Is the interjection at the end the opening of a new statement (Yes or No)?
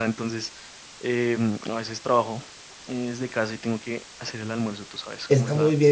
Yes